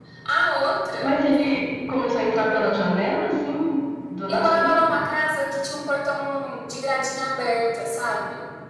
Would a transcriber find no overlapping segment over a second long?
Yes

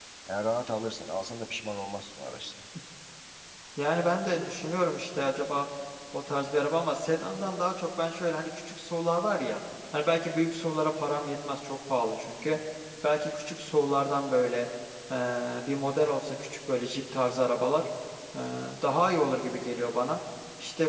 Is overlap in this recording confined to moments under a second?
Yes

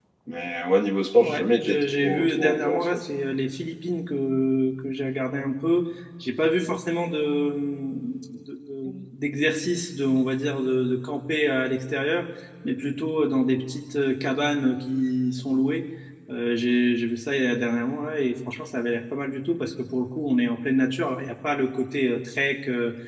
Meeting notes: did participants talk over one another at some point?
Yes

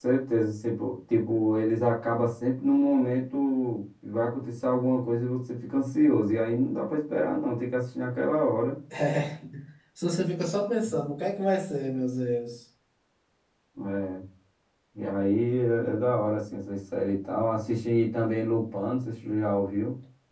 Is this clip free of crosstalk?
Yes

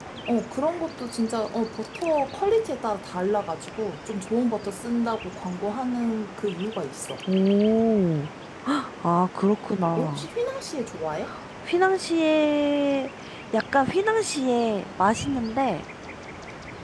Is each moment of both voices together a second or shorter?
Yes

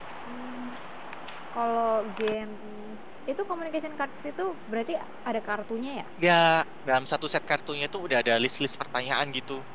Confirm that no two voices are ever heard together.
Yes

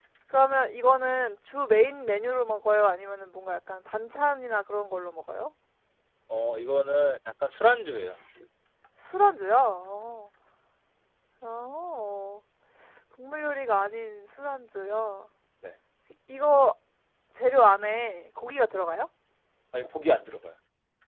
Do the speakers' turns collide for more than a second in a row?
No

